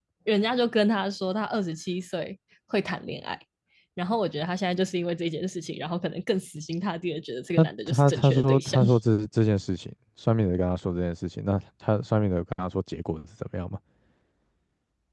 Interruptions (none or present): present